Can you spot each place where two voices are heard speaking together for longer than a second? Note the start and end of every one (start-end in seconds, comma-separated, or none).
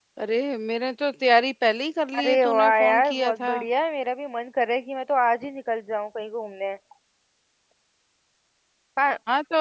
2.2-3.5